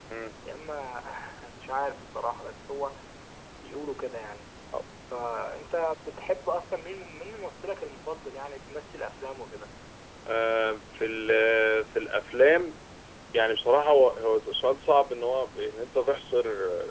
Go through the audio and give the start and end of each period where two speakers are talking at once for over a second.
none

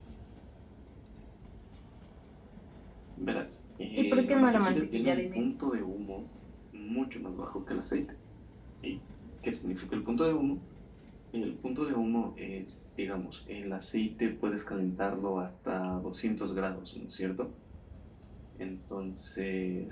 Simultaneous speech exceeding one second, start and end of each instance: 3.9-5.5

